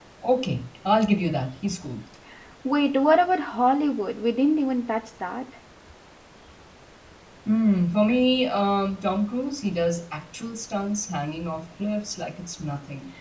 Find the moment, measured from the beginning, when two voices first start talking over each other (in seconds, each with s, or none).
none